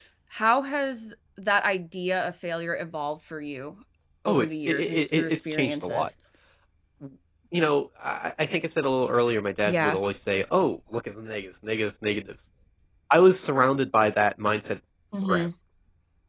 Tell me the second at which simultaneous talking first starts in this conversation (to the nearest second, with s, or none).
4 s